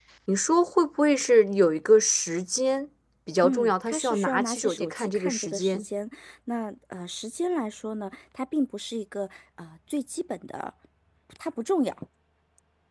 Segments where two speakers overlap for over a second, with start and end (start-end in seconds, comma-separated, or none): 3.4-5.8